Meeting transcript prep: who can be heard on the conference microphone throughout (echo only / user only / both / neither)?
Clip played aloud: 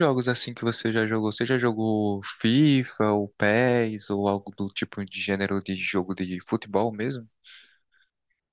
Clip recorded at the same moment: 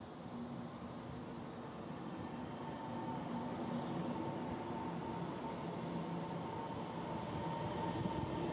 neither